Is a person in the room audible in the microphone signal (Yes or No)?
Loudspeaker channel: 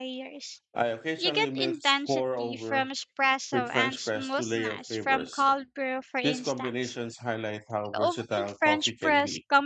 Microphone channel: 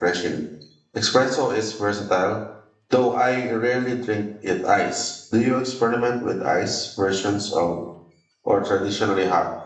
Yes